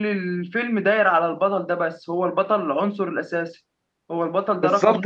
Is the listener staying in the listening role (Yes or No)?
No